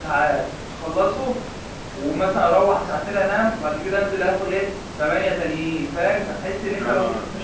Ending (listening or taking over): listening